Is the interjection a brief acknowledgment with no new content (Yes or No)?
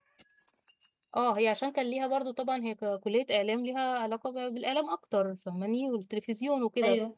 Yes